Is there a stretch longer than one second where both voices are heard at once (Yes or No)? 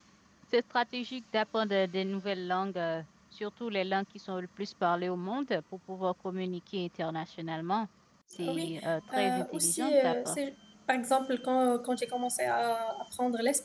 Yes